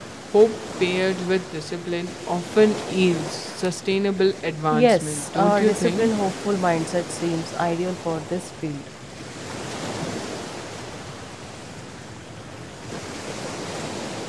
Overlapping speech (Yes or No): Yes